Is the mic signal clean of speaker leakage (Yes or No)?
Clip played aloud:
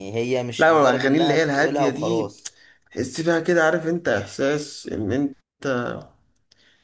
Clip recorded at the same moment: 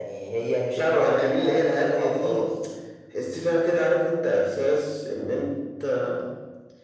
No